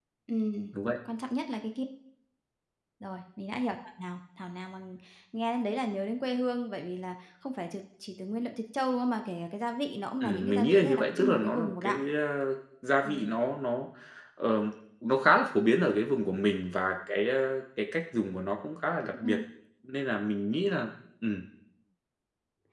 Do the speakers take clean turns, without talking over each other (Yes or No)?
No